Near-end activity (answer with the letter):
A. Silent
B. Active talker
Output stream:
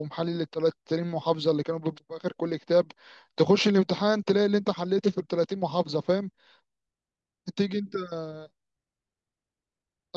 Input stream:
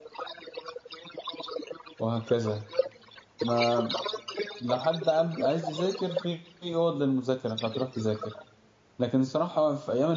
B